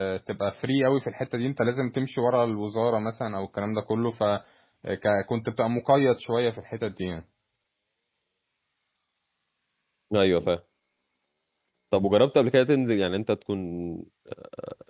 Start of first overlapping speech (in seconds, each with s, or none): none